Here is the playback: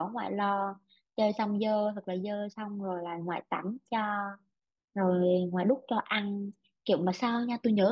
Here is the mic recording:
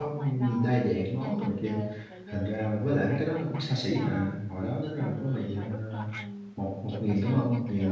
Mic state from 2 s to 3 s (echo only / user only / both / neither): both